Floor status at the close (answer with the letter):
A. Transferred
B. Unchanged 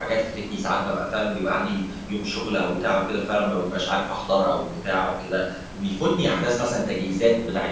B